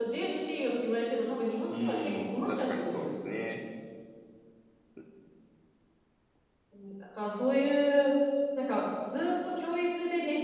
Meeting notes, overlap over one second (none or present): present